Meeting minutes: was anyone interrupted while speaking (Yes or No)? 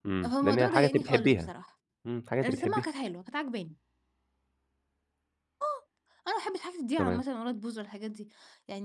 Yes